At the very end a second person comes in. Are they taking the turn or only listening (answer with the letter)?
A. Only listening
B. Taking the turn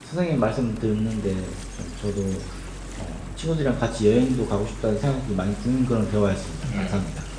B